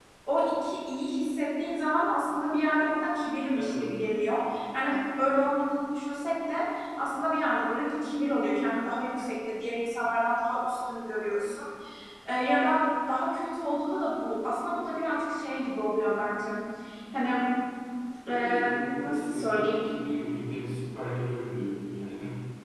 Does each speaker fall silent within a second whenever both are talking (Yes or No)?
No